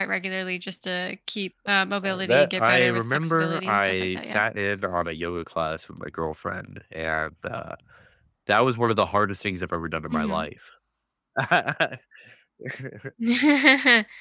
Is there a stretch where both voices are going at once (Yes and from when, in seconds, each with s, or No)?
Yes, from 2.0 s